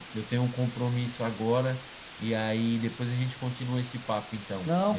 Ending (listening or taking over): taking over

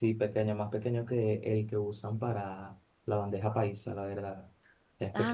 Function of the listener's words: taking over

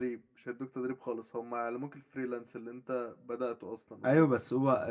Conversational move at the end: taking over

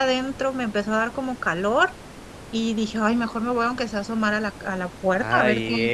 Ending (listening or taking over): taking over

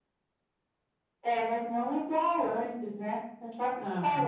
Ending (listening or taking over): taking over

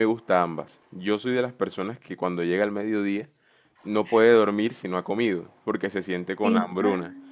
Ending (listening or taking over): listening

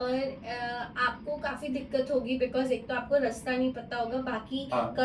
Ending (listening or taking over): listening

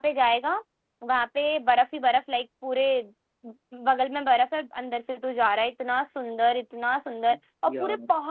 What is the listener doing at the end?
listening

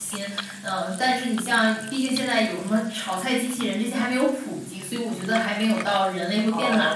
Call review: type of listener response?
taking over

